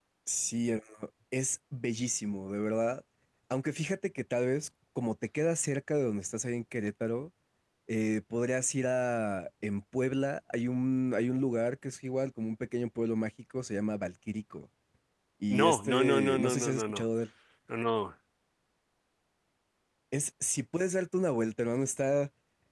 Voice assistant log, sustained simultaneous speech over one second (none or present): present